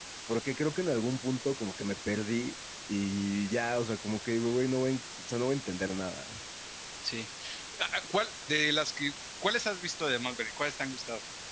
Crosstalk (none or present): none